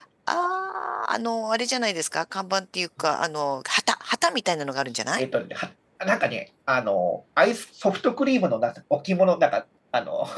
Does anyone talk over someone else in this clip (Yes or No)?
No